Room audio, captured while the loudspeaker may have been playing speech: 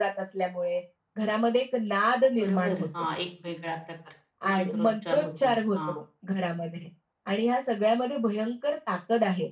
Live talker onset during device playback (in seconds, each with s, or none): 2.4 s